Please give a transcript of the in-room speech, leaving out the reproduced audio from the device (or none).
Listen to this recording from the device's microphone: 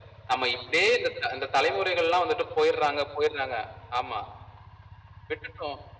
none